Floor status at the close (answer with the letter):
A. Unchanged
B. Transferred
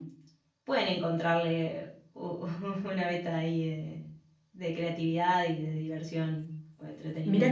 B